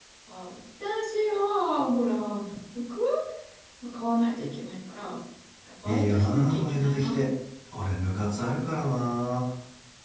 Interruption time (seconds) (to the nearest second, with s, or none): 6 s